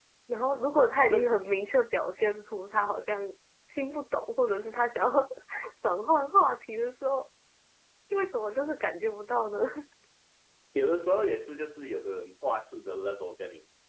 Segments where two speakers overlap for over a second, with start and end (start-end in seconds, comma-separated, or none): none